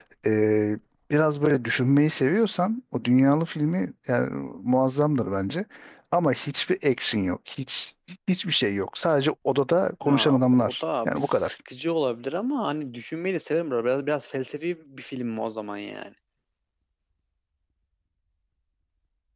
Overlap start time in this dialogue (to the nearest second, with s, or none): 10 s